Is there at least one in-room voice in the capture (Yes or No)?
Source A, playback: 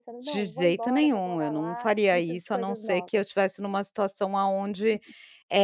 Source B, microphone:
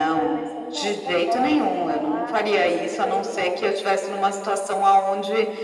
No